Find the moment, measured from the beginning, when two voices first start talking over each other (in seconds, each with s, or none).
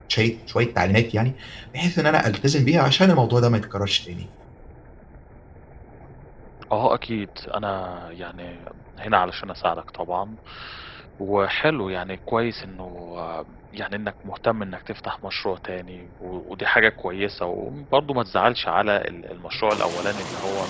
none